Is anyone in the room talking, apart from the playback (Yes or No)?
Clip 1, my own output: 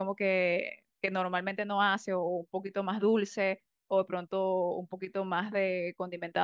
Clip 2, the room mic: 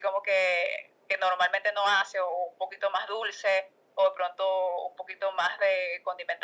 No